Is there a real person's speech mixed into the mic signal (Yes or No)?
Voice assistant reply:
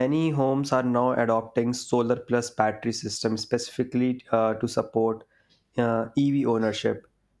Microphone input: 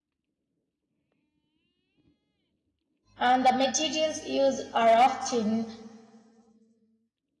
Yes